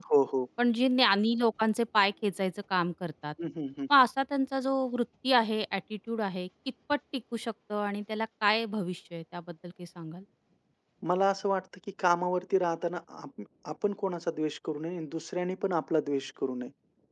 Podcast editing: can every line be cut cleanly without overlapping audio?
Yes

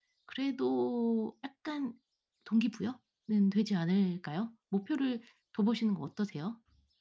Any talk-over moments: No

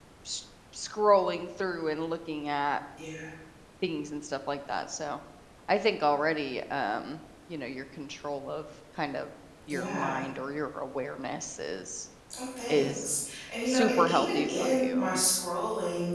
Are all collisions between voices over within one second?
No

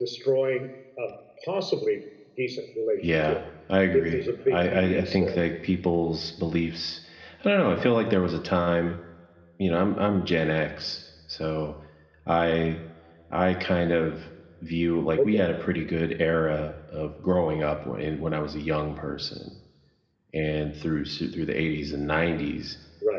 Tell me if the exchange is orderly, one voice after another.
No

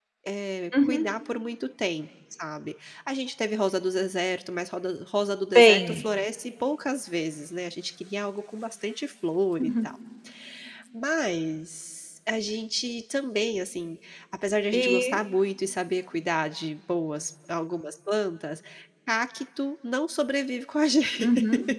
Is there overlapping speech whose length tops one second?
No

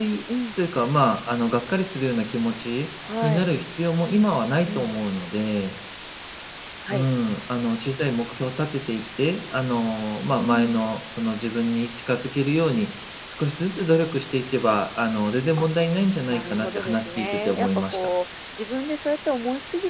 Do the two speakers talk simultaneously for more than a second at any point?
Yes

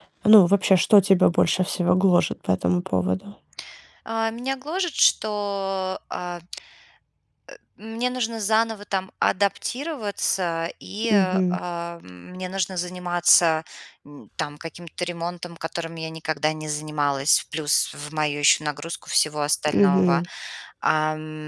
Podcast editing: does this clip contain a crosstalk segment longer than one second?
No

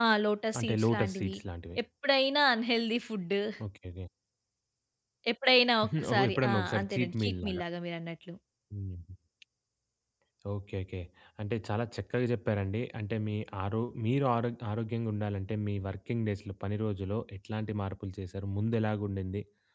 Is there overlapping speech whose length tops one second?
Yes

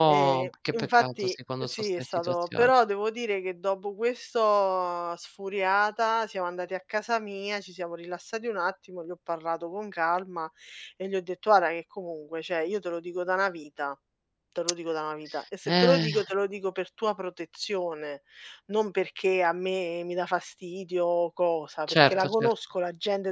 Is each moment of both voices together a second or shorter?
No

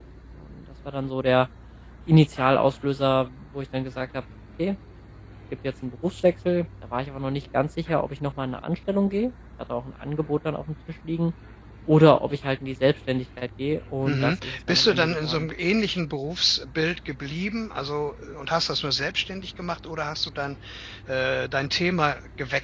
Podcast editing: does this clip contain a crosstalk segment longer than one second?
Yes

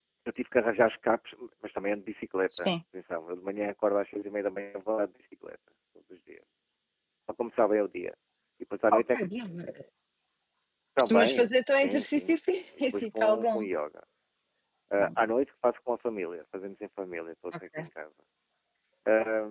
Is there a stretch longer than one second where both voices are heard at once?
Yes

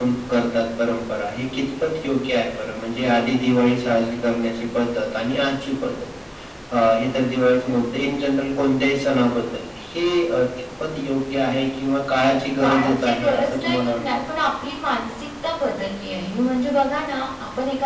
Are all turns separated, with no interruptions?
No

